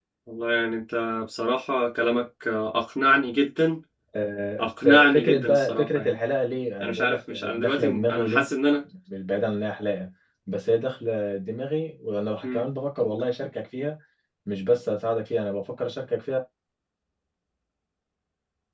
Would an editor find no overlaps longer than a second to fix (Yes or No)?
No